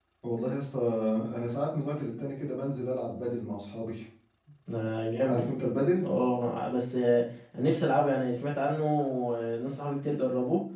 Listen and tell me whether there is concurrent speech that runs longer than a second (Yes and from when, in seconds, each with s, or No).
No